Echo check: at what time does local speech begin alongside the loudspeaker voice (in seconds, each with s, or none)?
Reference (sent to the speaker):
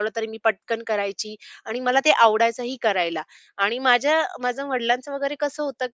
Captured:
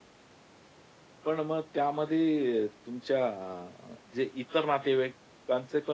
1.2 s